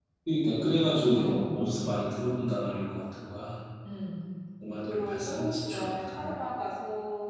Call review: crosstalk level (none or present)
present